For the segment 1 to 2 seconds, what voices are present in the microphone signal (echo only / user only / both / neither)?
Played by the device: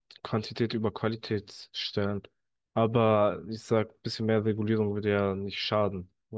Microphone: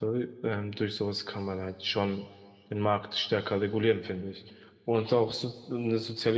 user only